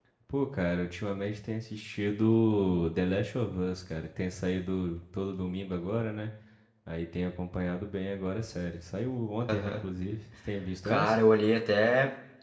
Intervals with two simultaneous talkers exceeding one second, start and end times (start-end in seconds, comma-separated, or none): none